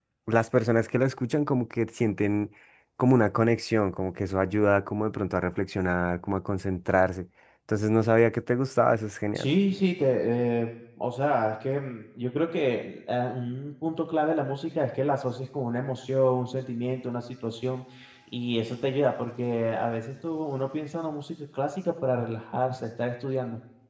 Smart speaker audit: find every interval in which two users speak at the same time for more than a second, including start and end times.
none

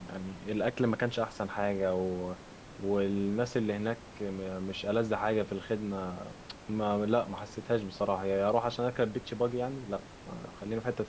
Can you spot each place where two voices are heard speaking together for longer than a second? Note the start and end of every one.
none

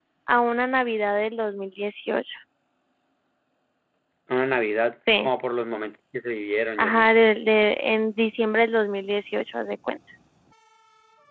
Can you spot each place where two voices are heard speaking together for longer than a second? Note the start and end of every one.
none

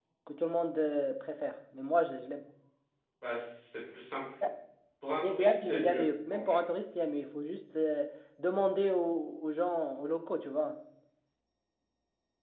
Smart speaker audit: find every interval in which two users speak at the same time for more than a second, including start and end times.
5.2-6.6

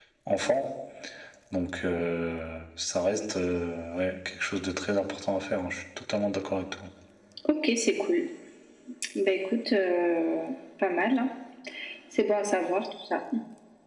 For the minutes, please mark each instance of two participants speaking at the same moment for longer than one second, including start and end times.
none

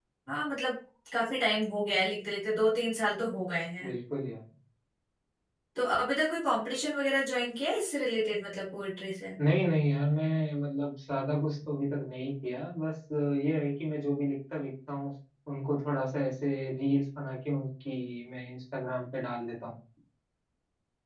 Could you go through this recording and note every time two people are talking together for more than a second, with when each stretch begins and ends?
none

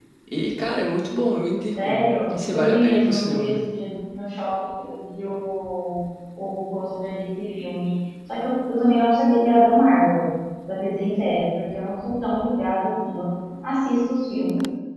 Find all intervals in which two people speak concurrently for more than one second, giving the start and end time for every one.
2.3-3.6

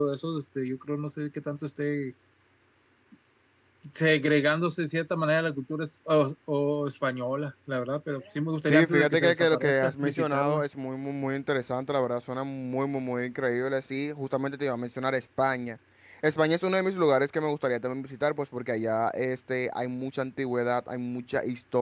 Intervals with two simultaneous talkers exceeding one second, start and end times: 8.7-10.6

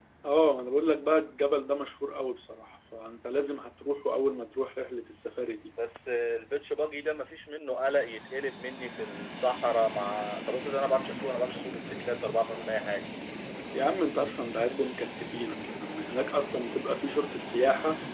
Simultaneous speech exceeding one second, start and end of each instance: none

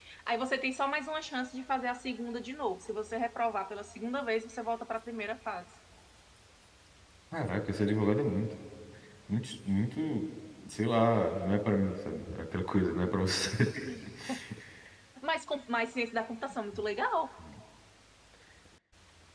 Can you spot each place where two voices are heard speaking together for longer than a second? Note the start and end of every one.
none

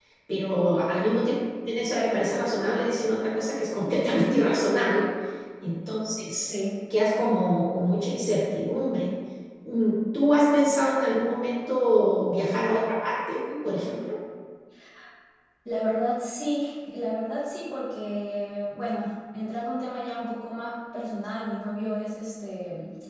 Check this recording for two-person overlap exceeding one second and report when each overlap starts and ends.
none

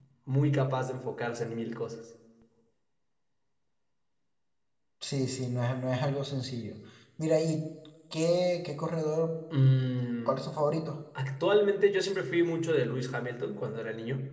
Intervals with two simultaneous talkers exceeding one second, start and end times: none

